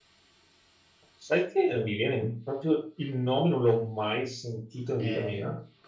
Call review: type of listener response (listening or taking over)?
taking over